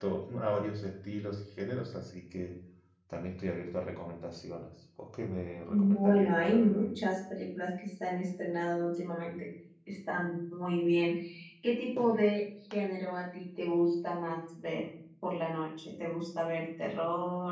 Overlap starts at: 6 s

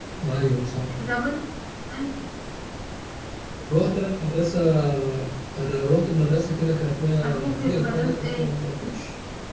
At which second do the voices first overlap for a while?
7 s

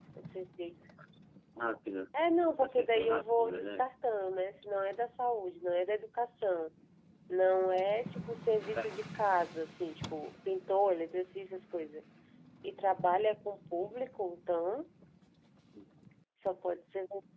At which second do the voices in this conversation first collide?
3 s

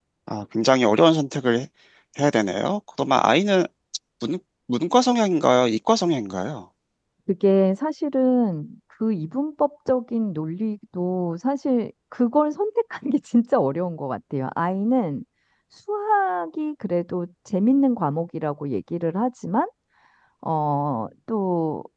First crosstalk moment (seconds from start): none

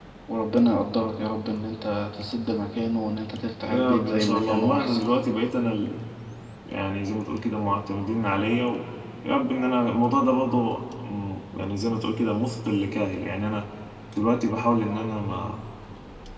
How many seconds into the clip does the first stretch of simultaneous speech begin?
4 s

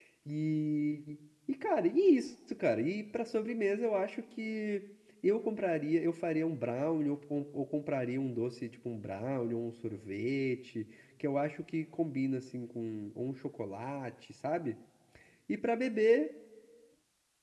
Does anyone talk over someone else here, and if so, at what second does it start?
none

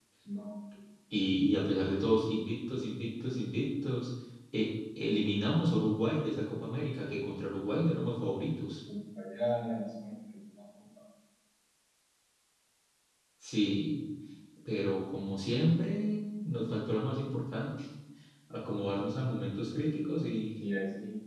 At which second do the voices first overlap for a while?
none

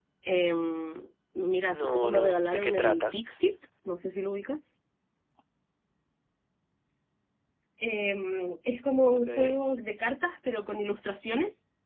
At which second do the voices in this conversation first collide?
2 s

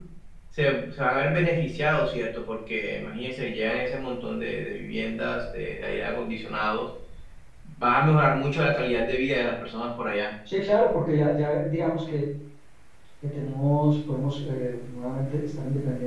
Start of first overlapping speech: none

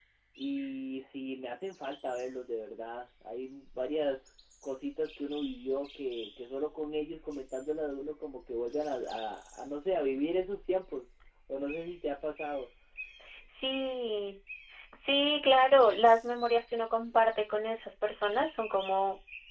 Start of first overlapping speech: none

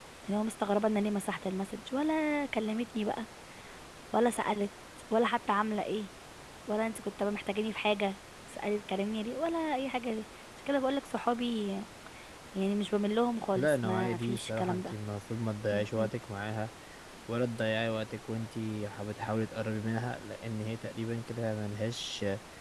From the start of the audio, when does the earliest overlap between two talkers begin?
14 s

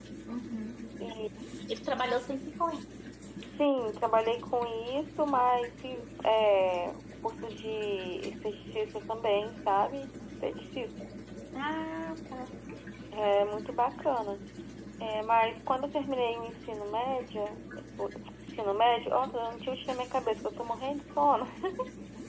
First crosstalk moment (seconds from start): none

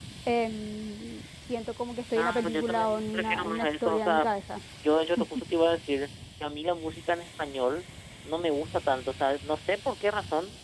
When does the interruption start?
2 s

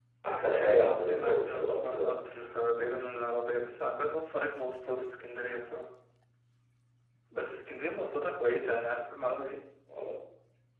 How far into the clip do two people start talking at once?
1 s

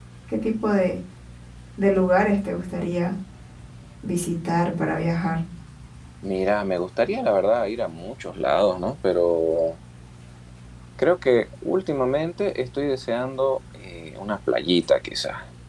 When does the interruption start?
none

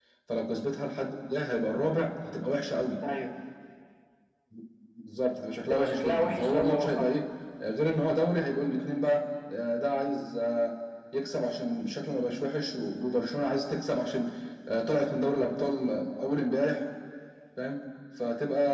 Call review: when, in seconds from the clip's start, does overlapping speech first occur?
6 s

